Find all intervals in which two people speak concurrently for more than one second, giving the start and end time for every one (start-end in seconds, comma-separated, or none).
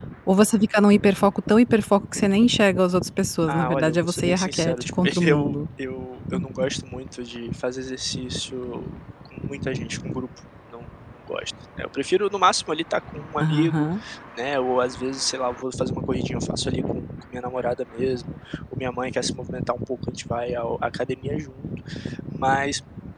3.5-5.6